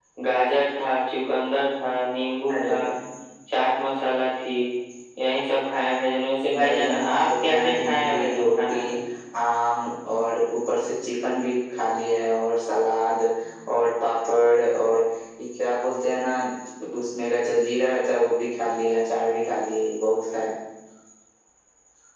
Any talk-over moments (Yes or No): Yes